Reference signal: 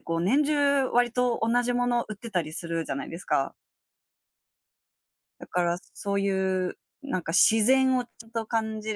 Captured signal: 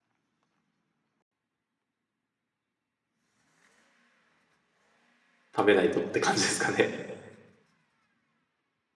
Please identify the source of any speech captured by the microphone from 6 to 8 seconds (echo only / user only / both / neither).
user only